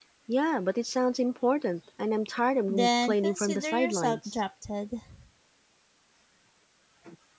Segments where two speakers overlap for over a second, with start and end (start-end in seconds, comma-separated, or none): 2.7-4.4